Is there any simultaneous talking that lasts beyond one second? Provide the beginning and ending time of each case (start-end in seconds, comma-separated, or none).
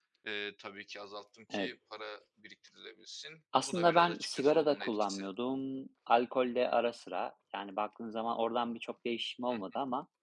3.7-5.2